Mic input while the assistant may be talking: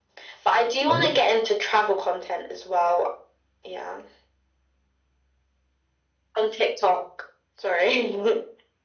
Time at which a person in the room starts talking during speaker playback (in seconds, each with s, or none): 0.9 s